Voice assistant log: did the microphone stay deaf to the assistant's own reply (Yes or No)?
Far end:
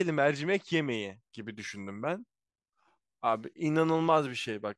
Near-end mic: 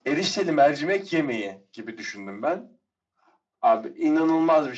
No